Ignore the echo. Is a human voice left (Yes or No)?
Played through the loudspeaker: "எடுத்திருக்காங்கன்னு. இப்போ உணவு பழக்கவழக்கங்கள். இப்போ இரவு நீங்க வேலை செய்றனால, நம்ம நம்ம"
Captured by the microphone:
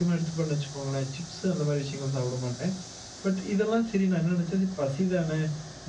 Yes